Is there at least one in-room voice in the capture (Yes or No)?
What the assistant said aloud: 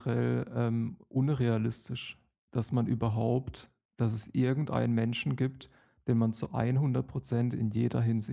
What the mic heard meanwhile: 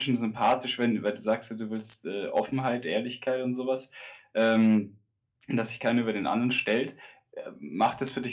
Yes